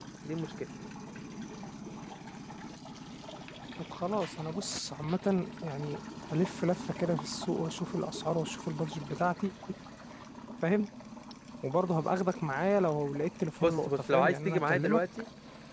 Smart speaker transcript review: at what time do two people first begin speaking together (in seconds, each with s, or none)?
13.6 s